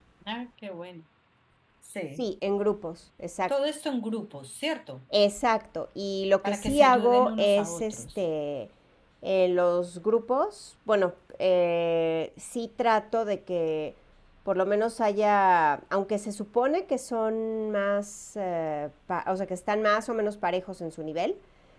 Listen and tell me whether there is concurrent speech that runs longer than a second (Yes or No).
Yes